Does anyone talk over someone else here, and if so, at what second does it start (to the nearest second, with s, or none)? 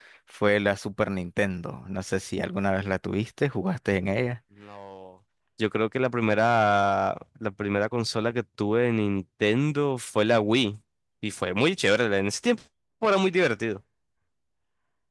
none